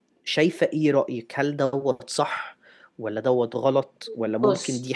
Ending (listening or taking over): listening